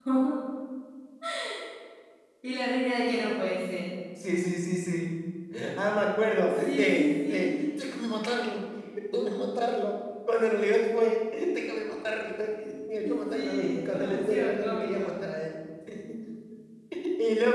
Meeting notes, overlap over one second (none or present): present